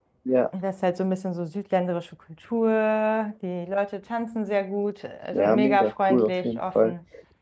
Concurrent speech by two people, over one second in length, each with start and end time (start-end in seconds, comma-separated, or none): 5.3-6.9